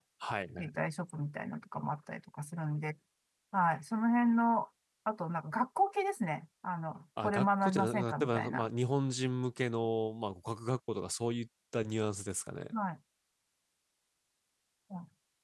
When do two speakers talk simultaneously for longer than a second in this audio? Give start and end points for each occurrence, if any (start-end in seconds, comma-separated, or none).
7.2-8.7